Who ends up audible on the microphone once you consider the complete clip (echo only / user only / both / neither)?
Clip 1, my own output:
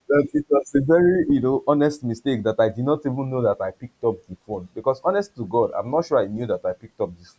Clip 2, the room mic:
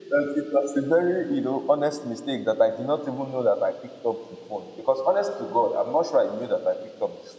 echo only